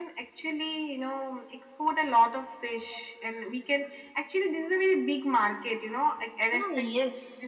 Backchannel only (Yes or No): No